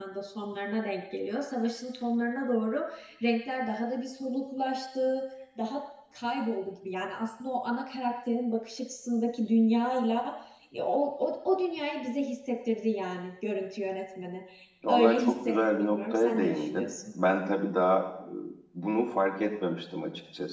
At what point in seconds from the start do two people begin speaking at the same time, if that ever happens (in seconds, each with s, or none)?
14.9 s